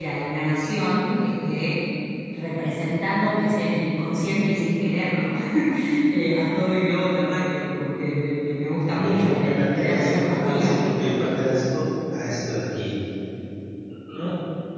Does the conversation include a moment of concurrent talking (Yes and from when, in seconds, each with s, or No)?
Yes, from 8.8 s